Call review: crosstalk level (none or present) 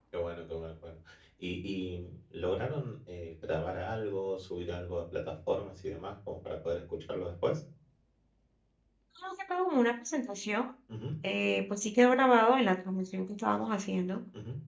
none